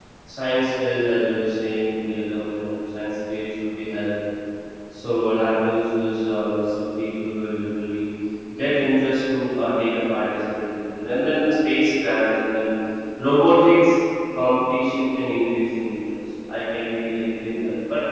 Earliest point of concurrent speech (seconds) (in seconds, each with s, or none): none